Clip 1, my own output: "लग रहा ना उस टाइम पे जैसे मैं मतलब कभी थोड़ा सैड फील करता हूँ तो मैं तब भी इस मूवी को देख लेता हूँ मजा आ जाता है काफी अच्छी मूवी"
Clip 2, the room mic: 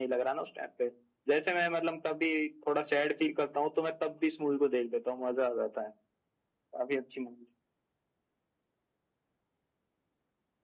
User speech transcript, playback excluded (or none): none